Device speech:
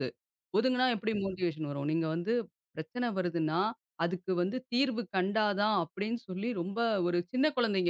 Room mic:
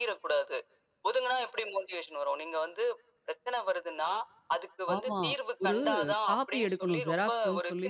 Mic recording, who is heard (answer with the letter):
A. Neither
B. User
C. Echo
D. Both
D